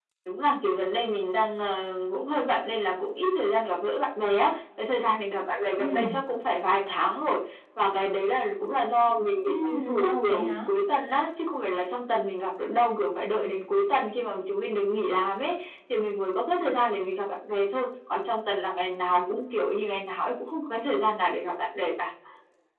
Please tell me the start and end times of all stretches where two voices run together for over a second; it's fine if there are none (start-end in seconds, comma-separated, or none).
9.5-10.7